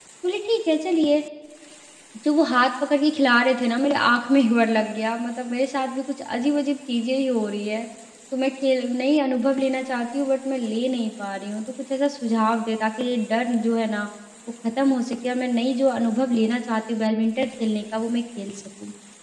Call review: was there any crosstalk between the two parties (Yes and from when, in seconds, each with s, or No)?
No